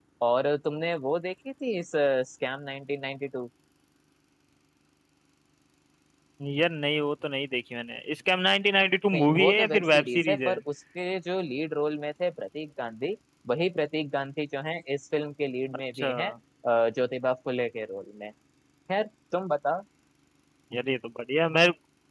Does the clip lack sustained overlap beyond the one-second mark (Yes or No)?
No